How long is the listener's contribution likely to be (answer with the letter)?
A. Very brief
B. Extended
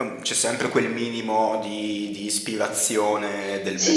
B